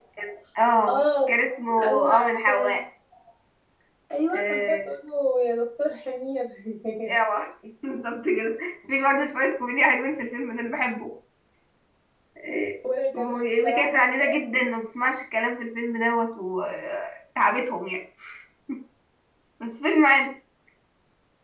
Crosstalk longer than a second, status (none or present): present